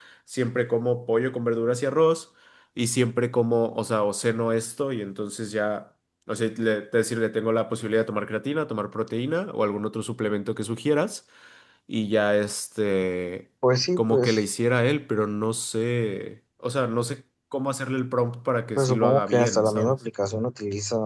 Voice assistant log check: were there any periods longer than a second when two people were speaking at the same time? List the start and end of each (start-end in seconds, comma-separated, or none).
18.8-20.0